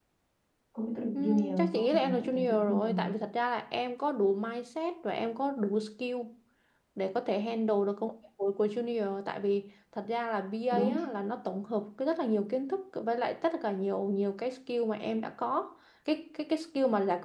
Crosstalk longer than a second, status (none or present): present